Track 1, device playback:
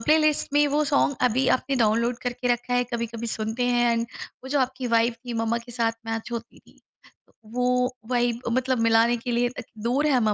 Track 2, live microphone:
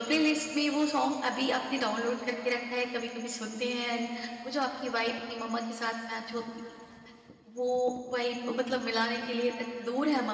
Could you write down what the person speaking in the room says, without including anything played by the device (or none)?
none